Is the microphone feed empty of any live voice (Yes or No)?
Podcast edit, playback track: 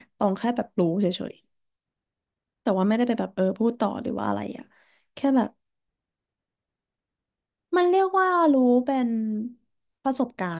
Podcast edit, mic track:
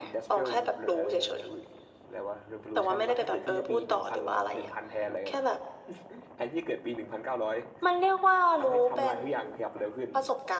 No